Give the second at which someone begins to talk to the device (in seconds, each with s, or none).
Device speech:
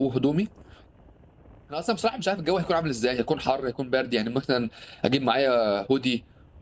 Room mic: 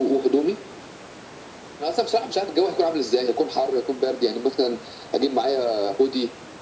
none